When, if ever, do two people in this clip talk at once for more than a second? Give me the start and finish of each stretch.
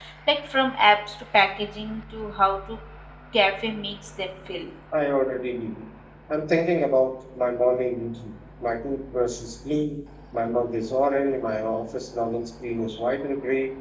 none

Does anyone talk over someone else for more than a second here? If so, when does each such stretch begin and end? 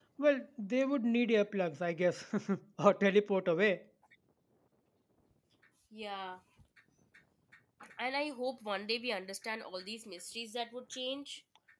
none

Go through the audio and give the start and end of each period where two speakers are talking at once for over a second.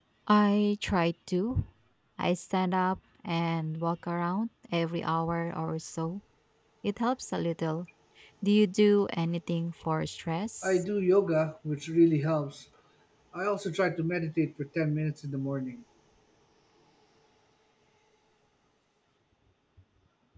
none

